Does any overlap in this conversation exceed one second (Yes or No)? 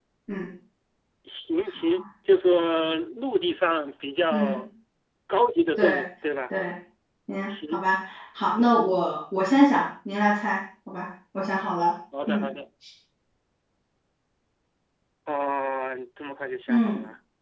No